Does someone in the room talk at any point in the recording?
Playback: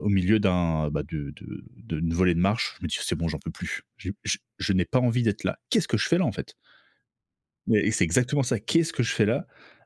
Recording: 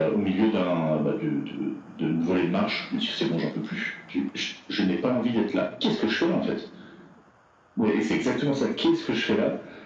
No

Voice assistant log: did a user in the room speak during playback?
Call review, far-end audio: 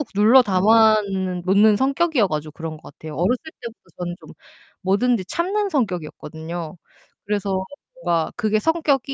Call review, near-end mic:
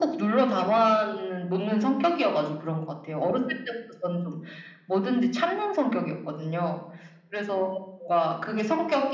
No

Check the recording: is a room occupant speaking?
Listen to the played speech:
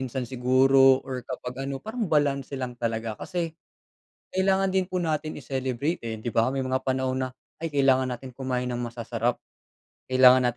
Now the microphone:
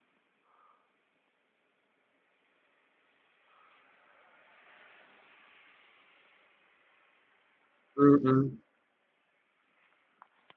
Yes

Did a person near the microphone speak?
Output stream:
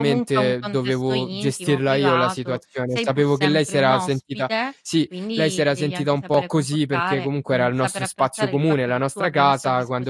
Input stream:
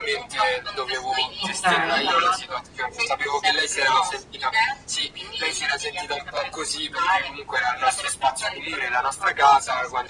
Yes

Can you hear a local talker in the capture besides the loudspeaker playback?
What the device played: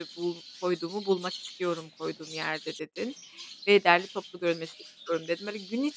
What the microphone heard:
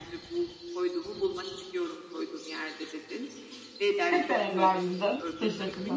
Yes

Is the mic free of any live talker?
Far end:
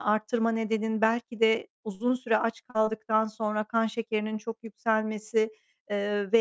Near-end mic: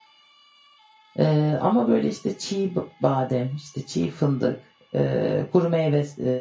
No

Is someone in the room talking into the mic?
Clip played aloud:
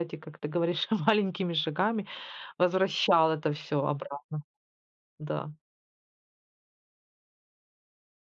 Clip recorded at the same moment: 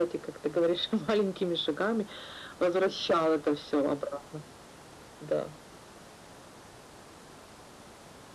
No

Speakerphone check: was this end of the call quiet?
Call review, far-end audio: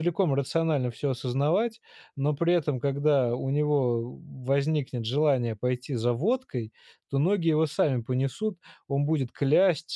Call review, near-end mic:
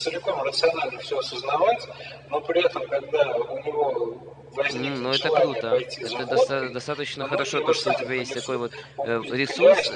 No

